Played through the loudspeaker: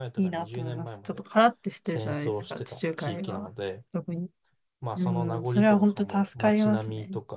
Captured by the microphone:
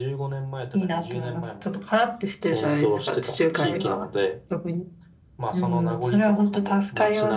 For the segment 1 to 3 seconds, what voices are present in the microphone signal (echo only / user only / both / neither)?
echo only